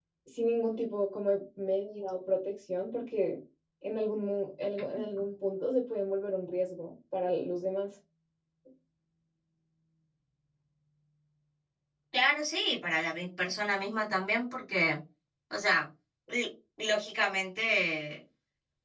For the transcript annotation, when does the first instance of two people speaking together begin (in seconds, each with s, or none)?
none